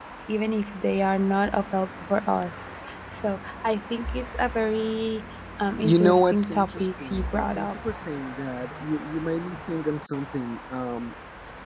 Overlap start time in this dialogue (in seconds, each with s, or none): 5.8 s